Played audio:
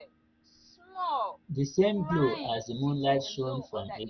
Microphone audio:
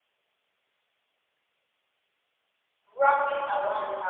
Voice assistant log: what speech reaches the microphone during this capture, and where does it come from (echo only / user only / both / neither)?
user only